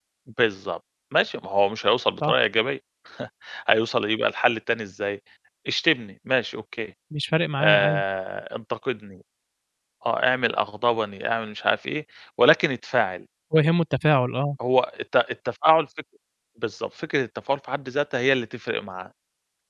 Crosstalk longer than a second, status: none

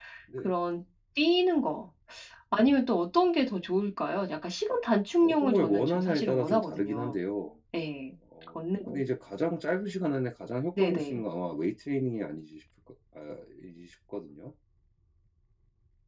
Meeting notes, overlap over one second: present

